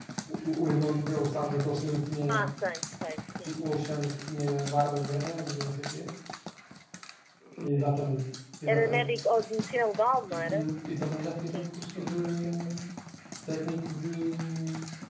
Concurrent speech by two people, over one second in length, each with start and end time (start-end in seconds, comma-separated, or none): 11.4-12.7